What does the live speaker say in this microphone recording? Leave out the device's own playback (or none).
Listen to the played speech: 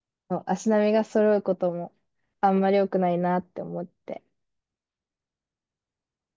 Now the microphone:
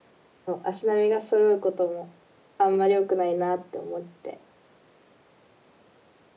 none